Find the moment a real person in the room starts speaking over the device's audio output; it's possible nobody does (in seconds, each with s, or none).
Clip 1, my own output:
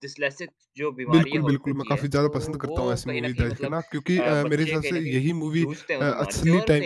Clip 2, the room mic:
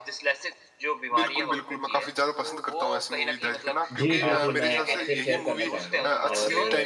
4.0 s